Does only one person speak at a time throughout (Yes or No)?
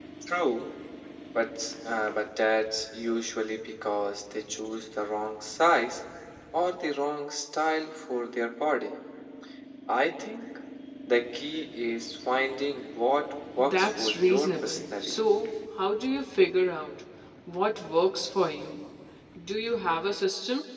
No